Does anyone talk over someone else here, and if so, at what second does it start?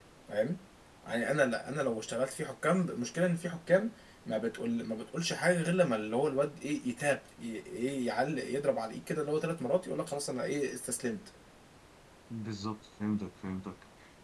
none

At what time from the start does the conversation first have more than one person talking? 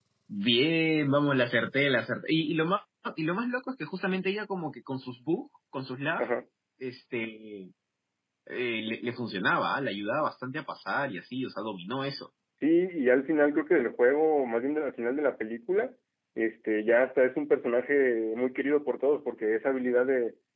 none

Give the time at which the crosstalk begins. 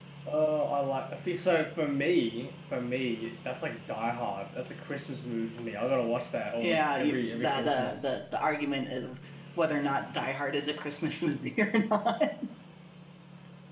6.6 s

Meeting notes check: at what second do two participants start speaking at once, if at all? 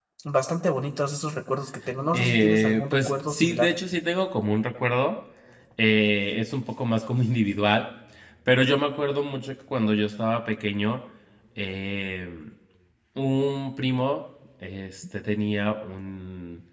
2.1 s

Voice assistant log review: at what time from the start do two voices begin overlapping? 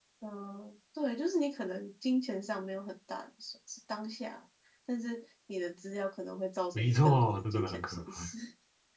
6.7 s

